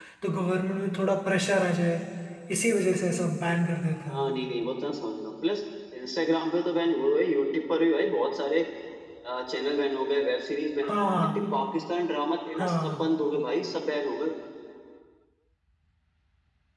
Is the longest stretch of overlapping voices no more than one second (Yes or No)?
Yes